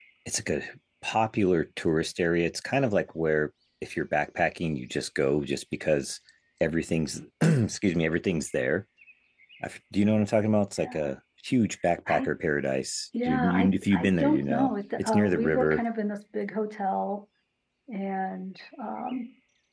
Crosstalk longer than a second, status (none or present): present